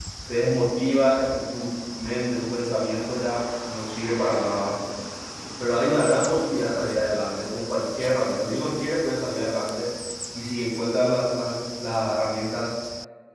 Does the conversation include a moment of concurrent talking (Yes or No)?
No